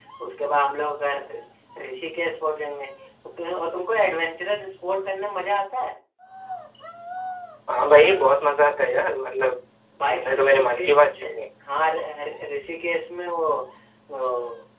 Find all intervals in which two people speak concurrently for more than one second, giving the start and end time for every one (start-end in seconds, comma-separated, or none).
10.1-11.4